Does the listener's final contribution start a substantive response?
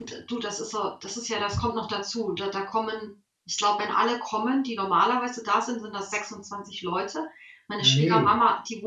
No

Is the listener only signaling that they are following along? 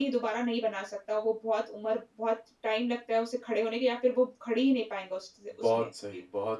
No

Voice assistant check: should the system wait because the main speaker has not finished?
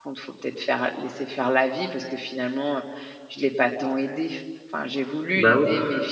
Yes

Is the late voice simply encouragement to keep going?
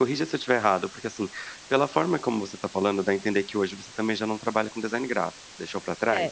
No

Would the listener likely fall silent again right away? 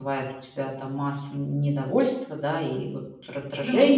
Yes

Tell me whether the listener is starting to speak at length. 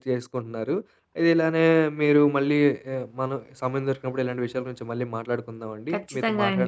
No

